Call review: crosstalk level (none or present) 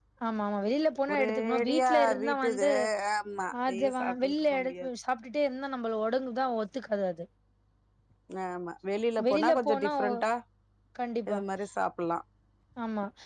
present